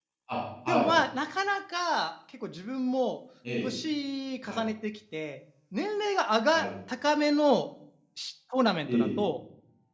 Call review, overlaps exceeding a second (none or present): none